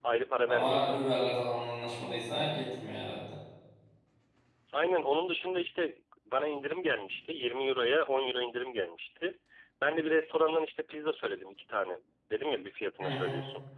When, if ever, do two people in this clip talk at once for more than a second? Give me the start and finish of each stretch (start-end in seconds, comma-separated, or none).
none